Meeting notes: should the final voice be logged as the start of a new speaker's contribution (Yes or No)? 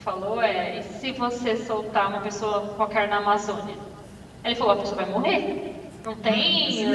Yes